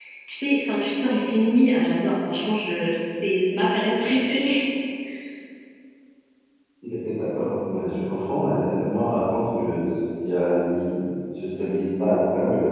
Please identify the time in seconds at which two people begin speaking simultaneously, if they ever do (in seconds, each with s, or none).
none